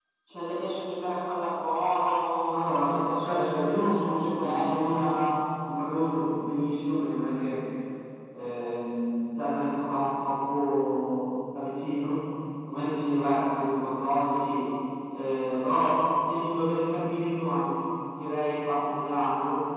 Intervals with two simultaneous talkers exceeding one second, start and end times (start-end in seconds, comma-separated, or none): 2.5-5.0